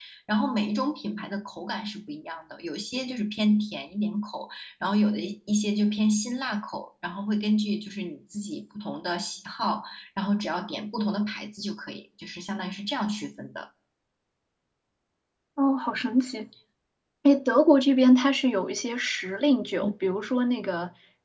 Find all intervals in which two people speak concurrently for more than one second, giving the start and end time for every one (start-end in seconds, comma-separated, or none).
none